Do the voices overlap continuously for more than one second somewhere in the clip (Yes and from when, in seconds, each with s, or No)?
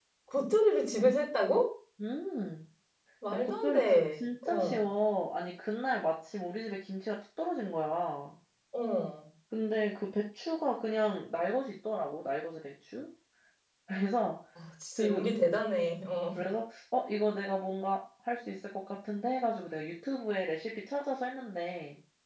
Yes, from 3.3 s